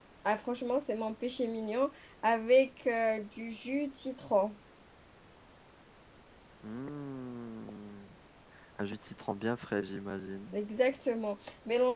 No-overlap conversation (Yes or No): Yes